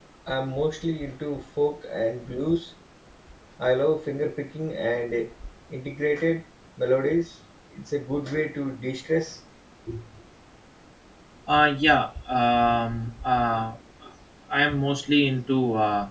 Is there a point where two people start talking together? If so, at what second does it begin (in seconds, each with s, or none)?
none